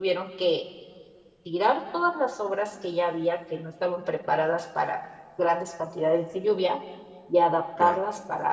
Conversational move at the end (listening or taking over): listening